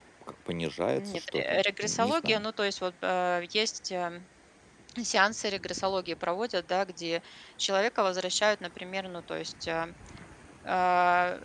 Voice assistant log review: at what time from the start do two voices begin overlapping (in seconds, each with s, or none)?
0.9 s